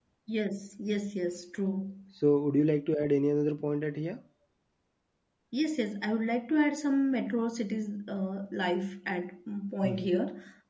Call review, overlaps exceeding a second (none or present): none